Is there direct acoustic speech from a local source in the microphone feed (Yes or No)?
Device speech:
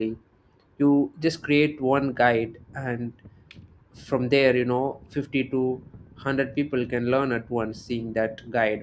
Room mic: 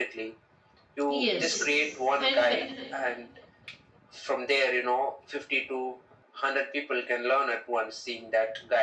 Yes